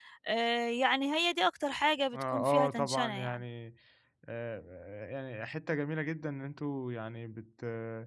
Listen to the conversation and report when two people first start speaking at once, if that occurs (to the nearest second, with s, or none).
2 s